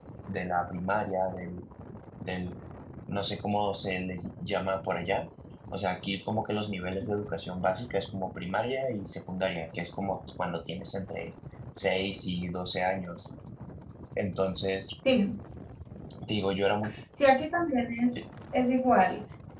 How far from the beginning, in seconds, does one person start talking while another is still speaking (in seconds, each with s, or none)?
none